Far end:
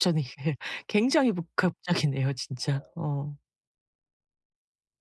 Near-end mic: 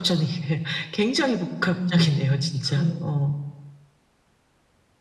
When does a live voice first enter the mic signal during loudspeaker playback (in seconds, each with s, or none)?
1.7 s